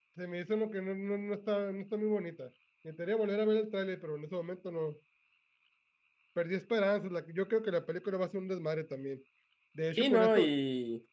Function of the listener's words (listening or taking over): taking over